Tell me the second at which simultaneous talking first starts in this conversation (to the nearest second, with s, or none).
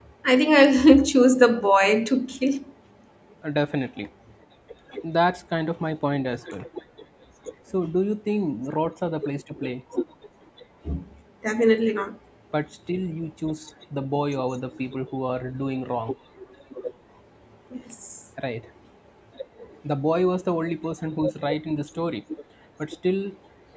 none